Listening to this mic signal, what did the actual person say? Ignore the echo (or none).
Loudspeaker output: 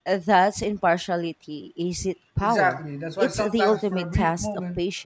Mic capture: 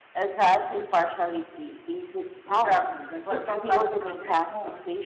none